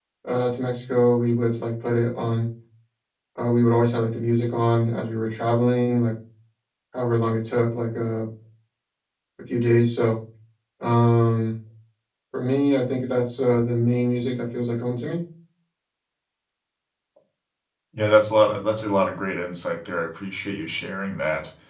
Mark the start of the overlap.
none

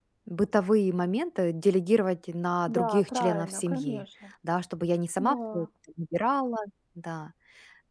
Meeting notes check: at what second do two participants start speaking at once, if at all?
2.7 s

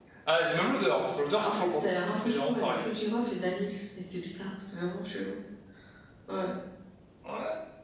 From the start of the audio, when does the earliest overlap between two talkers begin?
1.3 s

